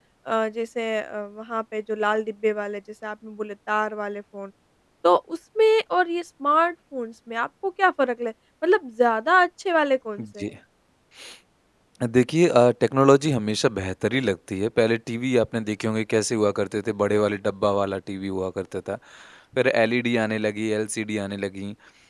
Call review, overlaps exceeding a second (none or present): none